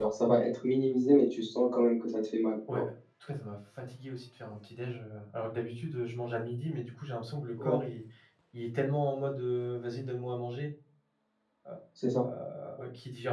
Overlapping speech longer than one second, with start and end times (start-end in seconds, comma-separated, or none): none